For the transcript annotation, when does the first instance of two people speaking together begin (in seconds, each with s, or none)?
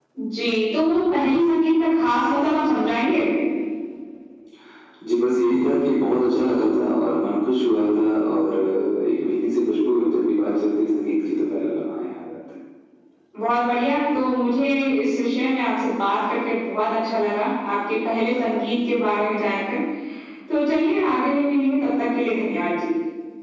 none